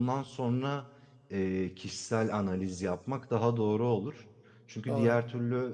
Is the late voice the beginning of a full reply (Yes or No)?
No